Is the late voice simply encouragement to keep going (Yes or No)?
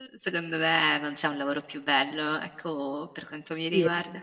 No